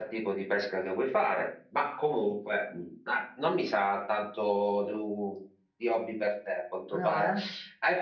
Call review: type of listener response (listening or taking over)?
listening